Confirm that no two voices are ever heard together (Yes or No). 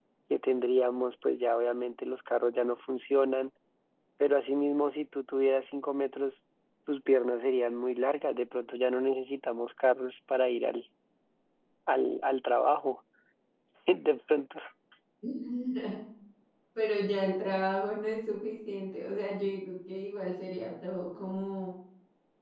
Yes